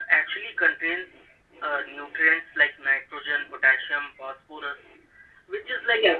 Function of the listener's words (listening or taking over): listening